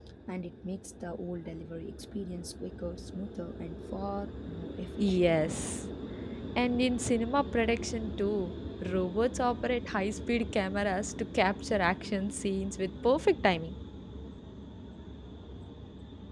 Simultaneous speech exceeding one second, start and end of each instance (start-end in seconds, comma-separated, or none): none